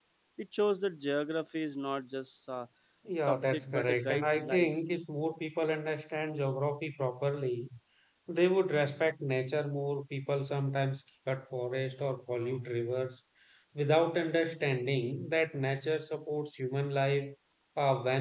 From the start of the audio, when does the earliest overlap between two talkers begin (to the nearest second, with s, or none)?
3 s